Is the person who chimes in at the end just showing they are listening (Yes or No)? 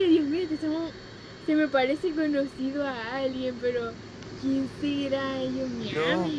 Yes